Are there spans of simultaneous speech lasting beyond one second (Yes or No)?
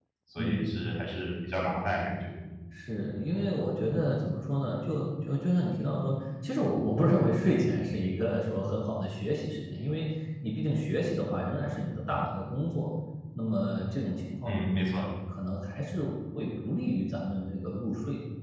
No